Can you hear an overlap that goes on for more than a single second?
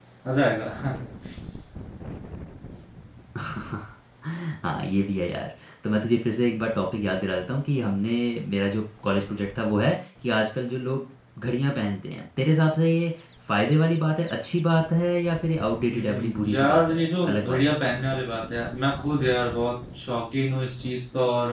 Yes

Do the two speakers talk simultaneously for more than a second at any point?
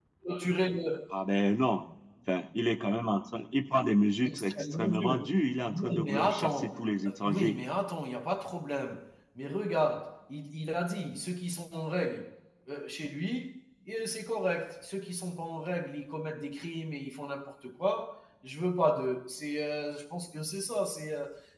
Yes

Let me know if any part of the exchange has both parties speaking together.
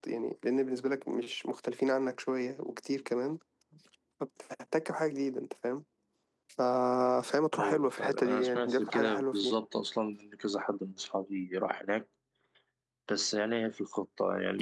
Yes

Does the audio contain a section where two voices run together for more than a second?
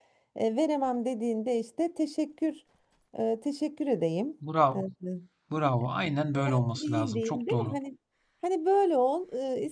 Yes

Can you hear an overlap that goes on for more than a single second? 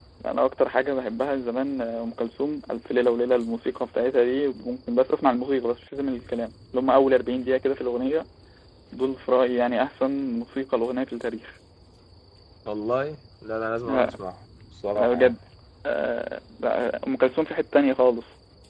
No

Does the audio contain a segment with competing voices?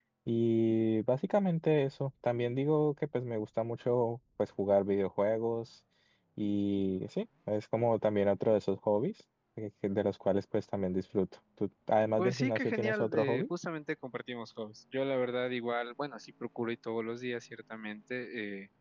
Yes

